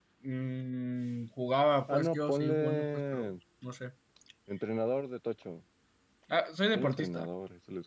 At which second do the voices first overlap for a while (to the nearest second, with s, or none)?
2 s